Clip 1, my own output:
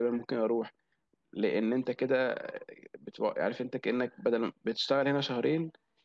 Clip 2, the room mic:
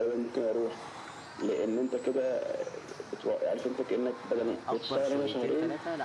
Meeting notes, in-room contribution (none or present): present